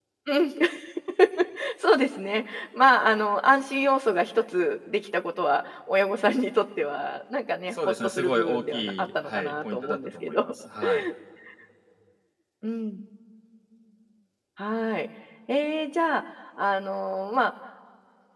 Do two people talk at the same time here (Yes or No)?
Yes